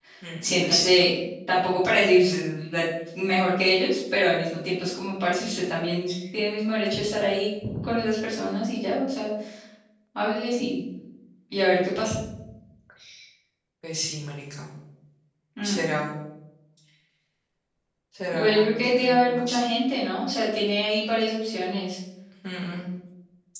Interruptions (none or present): present